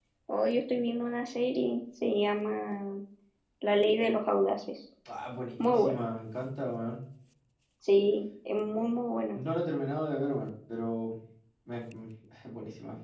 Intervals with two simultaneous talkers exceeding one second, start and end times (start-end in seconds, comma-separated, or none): none